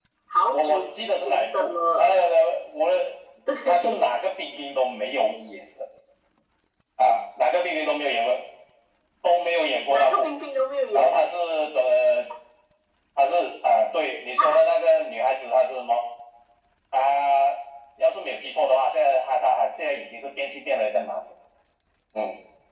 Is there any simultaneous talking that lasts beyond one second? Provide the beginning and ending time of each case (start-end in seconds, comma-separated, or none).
0.5-2.1